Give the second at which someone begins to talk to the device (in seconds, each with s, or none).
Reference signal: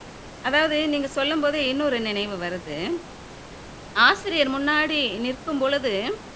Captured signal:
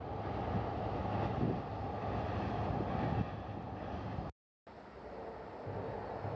none